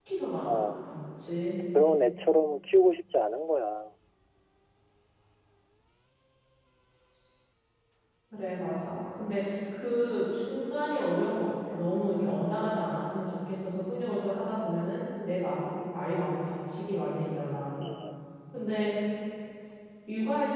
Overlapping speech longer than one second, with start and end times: none

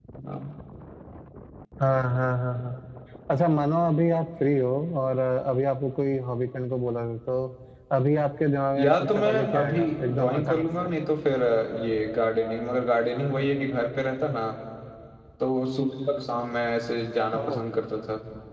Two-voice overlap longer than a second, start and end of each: 8.8-10.9

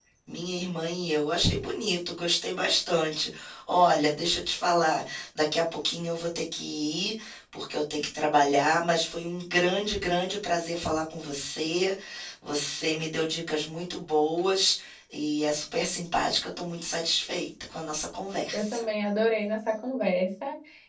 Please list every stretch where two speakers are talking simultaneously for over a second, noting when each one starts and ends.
none

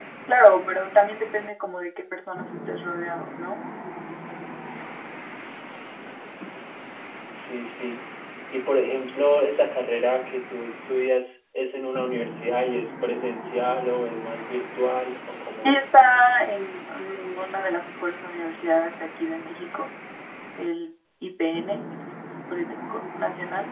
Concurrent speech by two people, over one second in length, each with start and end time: none

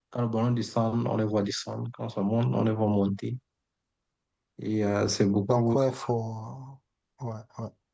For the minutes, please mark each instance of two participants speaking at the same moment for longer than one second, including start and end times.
none

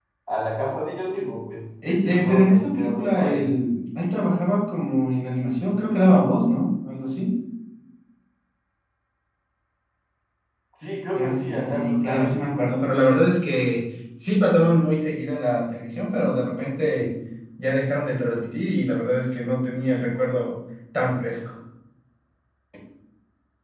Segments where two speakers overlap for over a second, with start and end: 1.8-3.5, 11.2-12.5

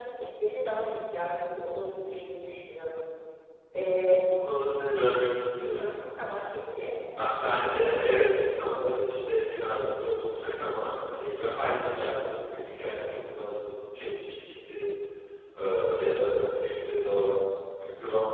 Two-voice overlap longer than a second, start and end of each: none

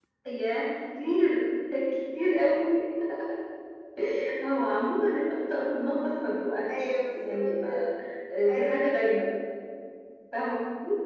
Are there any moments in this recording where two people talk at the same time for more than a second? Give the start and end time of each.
6.7-7.9

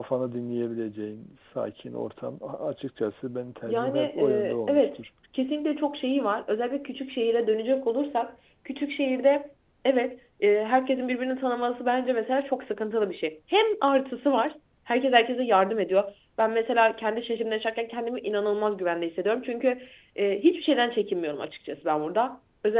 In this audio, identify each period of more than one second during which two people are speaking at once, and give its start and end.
3.7-5.0

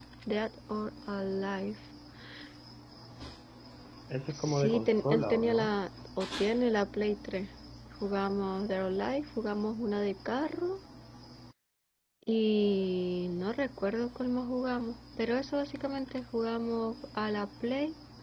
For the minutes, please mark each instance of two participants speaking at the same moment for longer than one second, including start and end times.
4.3-5.7

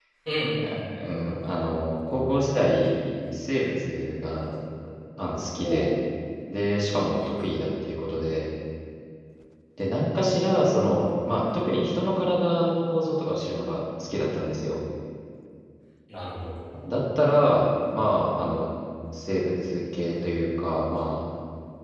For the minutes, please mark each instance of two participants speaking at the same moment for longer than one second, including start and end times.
none

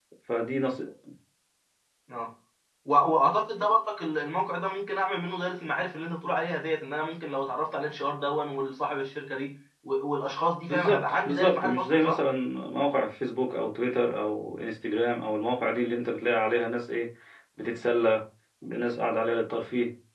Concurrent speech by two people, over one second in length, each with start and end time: 10.7-12.2

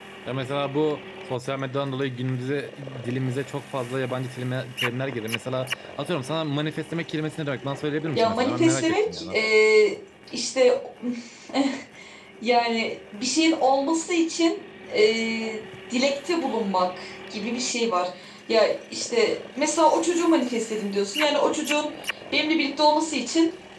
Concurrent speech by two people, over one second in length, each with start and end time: 8.2-9.4

